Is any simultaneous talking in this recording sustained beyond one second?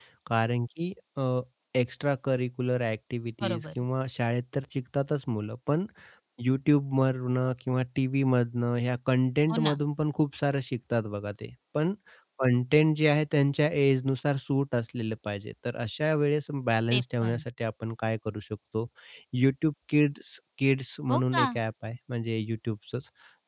No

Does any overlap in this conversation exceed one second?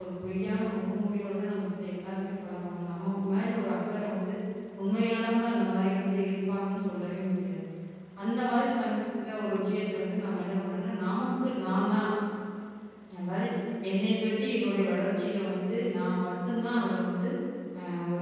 No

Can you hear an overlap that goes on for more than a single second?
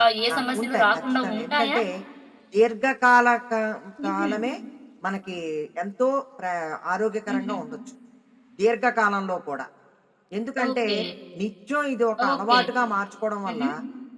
Yes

